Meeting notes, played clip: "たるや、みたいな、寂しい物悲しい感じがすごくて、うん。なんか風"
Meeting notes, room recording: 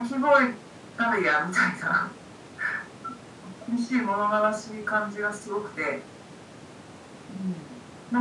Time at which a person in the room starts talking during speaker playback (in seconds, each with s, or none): none